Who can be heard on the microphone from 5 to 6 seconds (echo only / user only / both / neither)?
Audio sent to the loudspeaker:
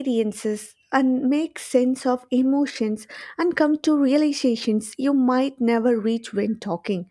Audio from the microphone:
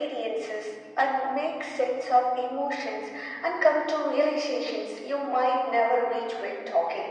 echo only